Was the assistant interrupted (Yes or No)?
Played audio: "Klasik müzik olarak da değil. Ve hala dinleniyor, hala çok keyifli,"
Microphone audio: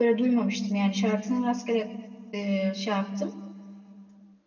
Yes